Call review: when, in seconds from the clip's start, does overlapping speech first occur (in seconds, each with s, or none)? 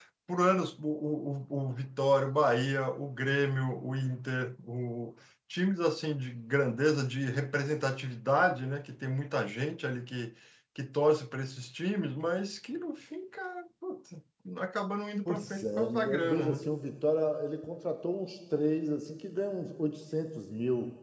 15.2 s